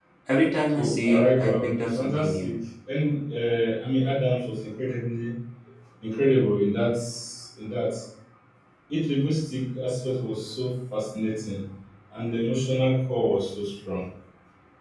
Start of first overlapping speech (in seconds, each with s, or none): 0.8 s